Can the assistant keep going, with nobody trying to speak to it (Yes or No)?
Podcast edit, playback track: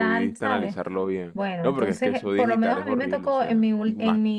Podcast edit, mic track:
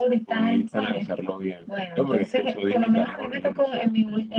Yes